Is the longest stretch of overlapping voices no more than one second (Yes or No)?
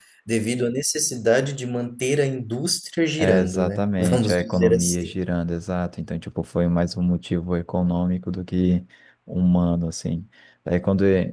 No